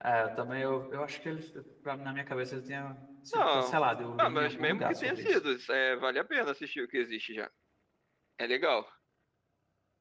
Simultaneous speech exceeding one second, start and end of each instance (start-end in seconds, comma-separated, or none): 4.2-5.4